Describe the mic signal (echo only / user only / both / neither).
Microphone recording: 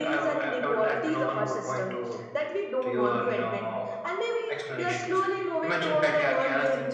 echo only